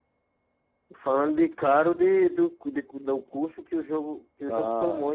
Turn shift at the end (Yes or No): Yes